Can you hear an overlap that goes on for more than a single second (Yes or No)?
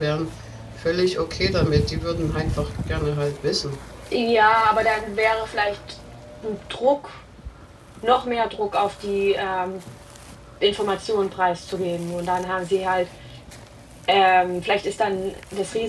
No